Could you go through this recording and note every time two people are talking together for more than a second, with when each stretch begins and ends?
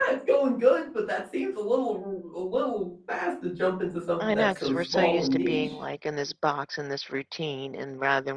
4.3-5.8

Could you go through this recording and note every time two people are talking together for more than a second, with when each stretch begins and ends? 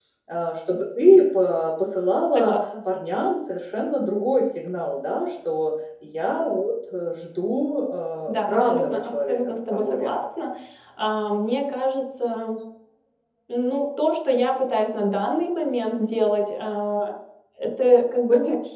8.3-10.2

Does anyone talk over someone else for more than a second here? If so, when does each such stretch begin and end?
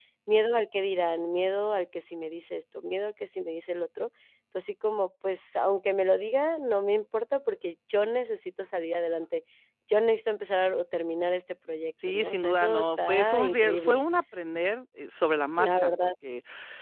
12.1-14.0

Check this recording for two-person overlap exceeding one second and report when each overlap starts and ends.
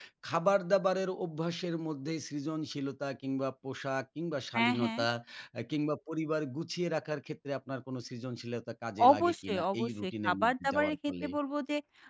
9.1-11.3

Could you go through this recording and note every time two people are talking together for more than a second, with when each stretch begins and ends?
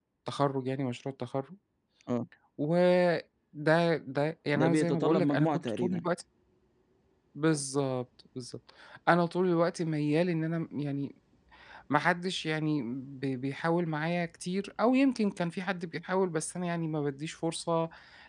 4.5-6.1

